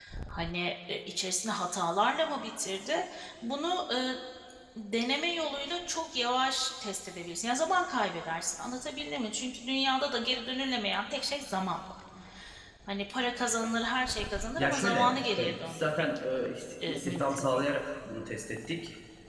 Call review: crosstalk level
present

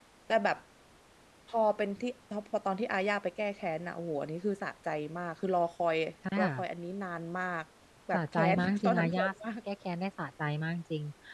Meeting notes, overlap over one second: present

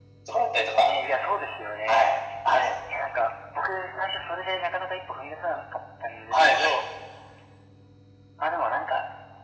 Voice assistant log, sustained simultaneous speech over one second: none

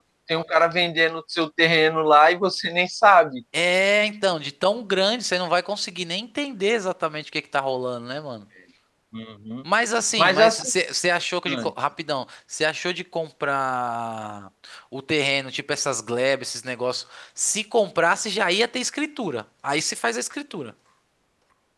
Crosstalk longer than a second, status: none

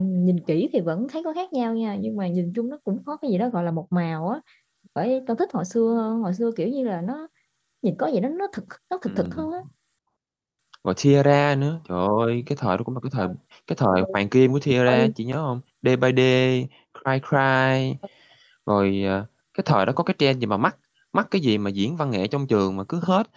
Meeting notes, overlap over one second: none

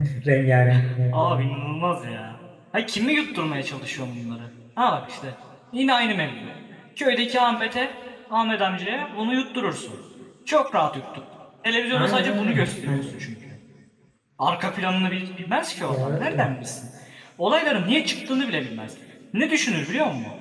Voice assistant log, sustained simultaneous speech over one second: present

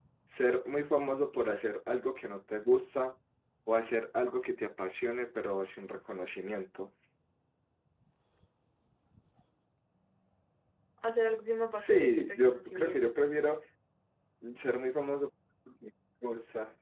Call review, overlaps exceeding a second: present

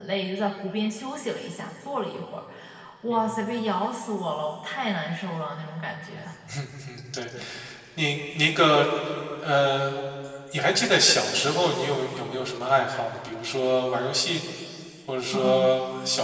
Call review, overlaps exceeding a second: none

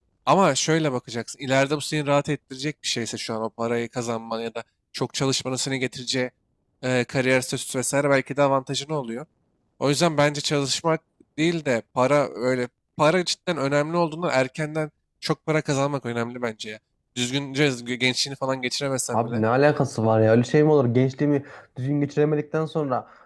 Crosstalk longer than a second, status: none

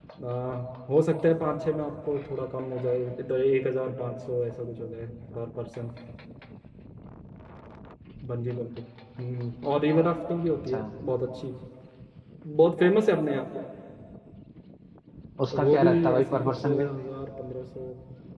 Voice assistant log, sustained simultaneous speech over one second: present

